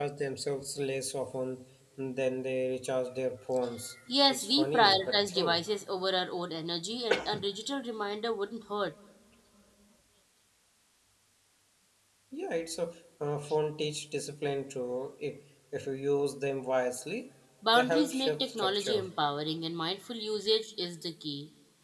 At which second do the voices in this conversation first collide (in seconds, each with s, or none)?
4.3 s